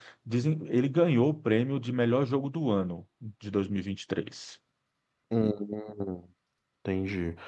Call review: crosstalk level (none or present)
none